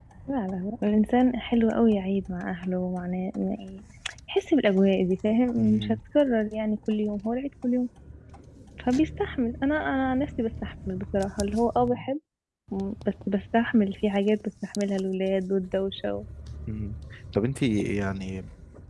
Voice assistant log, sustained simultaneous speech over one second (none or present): none